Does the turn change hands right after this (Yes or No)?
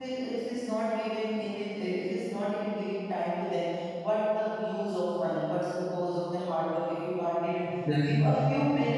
No